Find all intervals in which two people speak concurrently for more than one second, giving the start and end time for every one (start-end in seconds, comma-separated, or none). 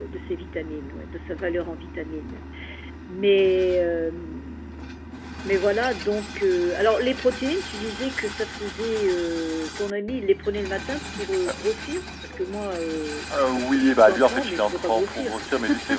14.0-15.4